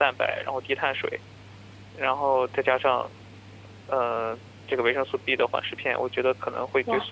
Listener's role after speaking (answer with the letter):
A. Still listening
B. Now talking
B